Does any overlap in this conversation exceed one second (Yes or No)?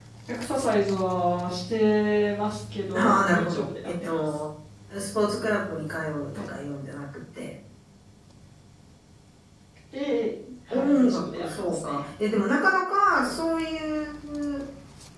Yes